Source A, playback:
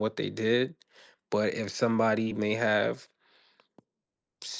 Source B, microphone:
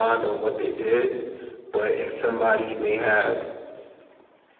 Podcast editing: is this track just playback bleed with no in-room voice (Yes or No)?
Yes